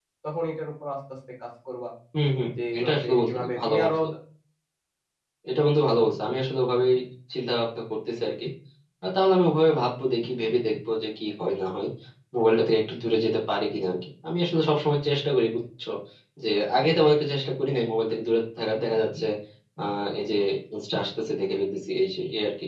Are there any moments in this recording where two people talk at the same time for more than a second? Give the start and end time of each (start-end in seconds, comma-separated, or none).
2.5-3.9